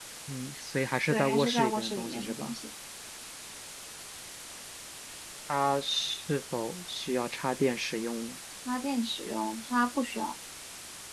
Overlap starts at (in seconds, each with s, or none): 1.1 s